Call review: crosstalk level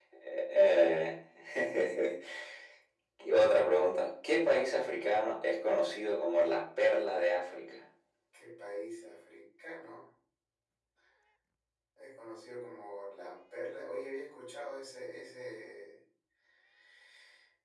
none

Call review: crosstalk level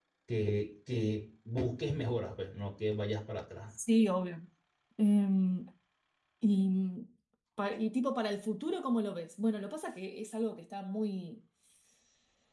none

